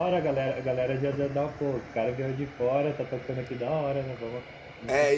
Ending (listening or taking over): taking over